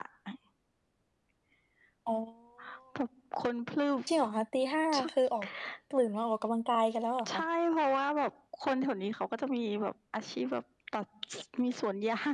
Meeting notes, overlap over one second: none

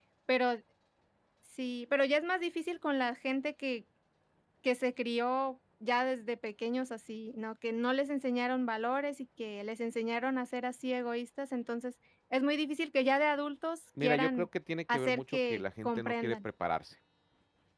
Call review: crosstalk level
present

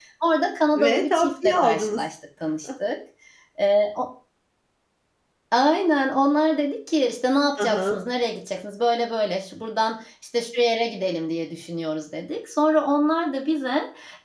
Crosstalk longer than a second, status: present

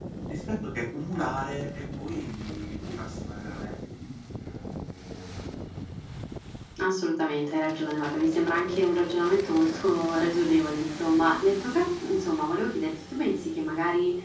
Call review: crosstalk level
none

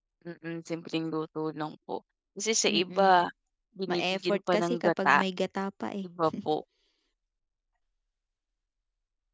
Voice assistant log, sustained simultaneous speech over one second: present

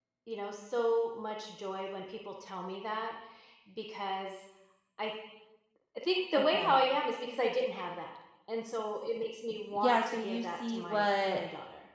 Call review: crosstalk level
present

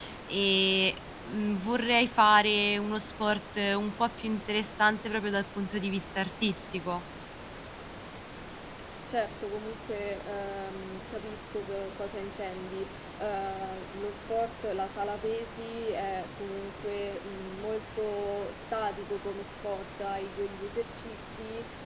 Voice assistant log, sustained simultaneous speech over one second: none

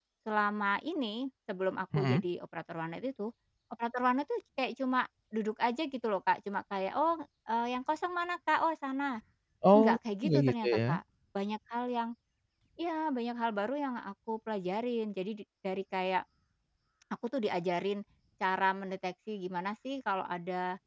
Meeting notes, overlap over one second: present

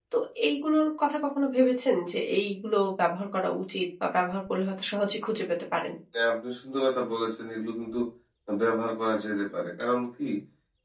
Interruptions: none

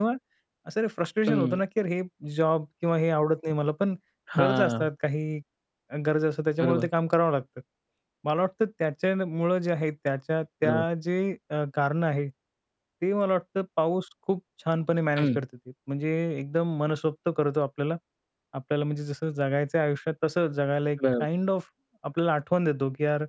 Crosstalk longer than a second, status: none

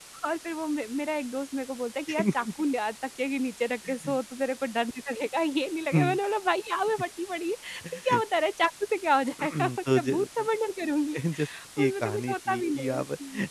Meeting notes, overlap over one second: present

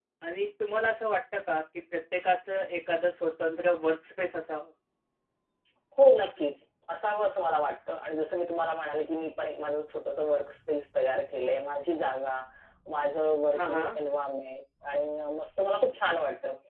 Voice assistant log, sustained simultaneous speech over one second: none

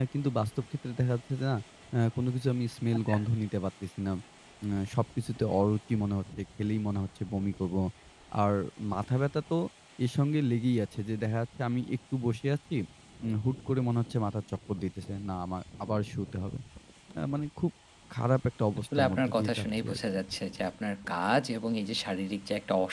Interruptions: present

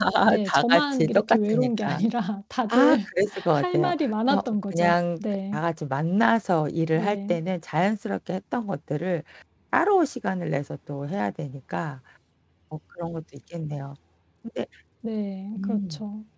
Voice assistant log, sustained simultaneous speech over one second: present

